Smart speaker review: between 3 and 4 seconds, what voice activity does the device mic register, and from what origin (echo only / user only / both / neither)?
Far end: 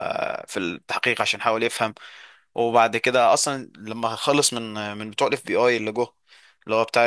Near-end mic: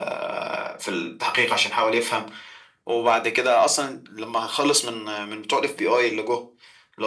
echo only